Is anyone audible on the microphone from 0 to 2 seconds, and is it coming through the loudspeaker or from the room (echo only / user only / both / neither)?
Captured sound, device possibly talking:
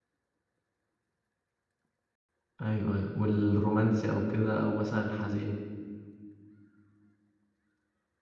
neither